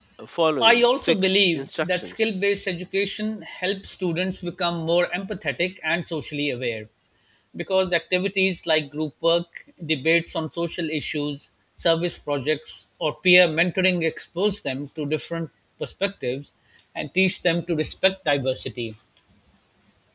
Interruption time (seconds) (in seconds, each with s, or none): 0.6 s